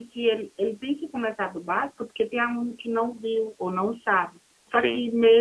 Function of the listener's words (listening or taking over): listening